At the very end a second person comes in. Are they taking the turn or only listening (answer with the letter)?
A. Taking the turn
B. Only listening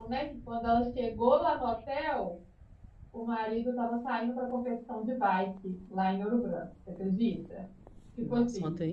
A